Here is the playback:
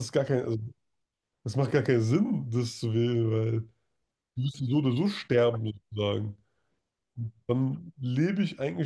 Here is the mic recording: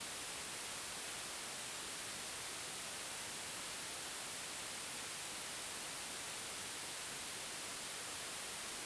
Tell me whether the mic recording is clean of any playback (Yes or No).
Yes